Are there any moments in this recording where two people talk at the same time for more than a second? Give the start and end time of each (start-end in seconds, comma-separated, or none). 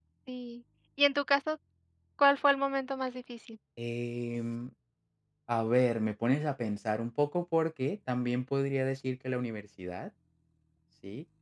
none